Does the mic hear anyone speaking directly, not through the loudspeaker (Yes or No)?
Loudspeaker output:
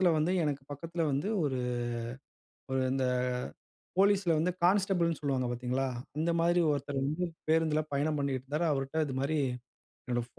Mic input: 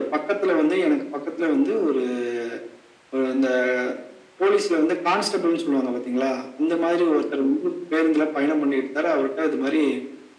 No